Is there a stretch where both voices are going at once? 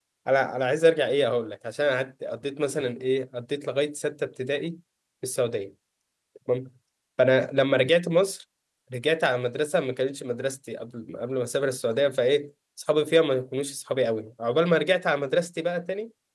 No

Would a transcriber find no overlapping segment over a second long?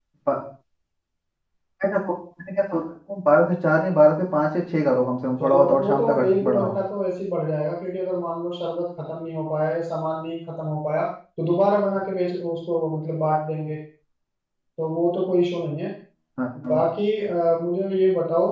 No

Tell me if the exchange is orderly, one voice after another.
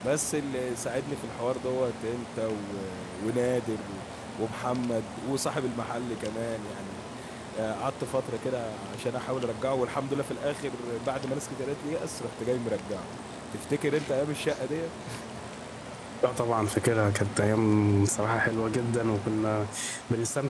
Yes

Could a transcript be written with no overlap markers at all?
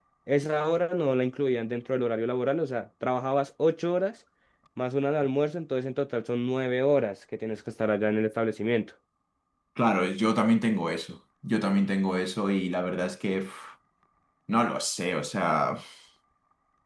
Yes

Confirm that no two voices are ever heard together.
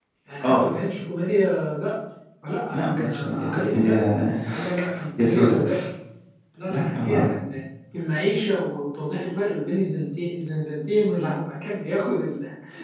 No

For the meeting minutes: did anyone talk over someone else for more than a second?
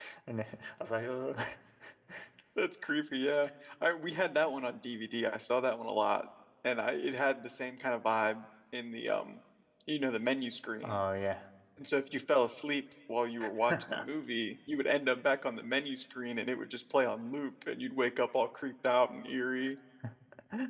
No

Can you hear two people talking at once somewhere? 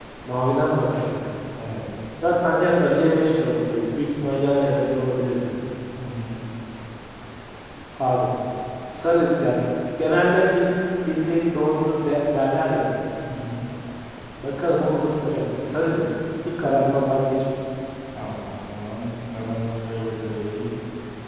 No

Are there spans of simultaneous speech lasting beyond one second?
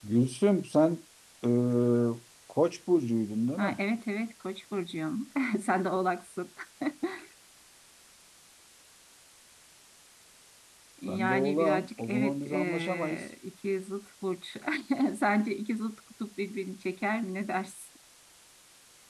Yes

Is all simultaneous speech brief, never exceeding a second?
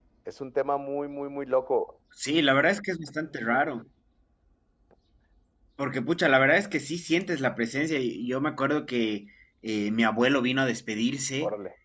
Yes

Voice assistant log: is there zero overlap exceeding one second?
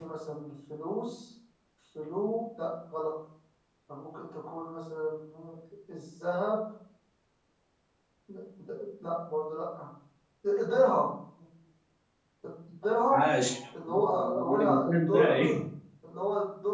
No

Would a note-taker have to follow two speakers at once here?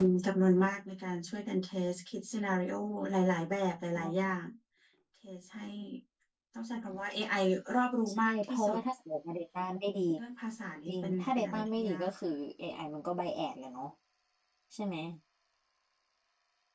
Yes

